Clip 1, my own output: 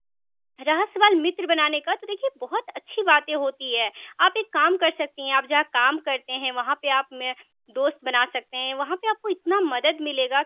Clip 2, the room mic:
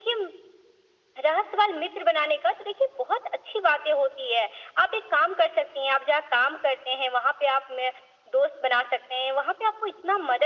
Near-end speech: none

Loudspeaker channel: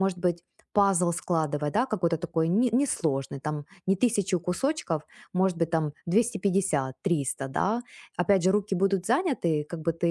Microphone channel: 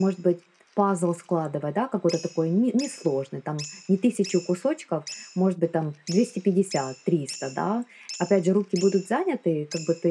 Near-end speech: none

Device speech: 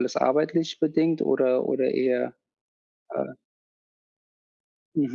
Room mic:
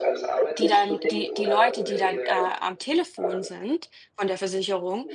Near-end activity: present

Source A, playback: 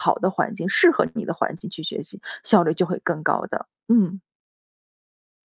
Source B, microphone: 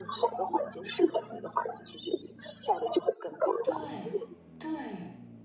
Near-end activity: present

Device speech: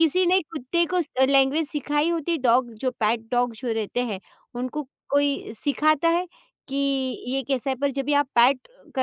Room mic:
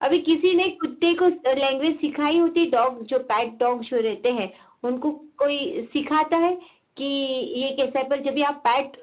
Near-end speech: none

